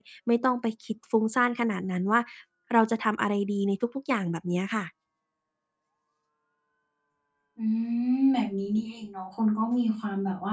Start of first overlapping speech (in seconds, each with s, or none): none